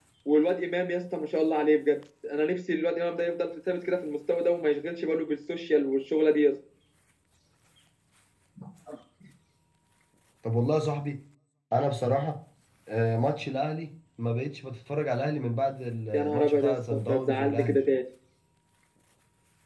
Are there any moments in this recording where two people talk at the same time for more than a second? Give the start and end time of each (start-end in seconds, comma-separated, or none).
16.1-17.9